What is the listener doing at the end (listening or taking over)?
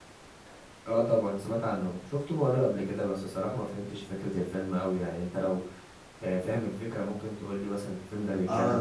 taking over